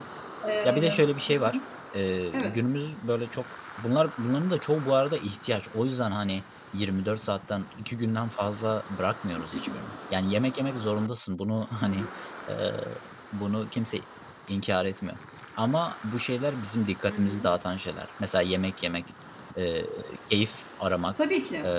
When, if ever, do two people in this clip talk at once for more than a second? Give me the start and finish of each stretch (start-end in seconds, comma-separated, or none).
none